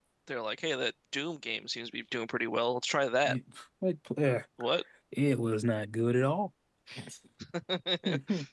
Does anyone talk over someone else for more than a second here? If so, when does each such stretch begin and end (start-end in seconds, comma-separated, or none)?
none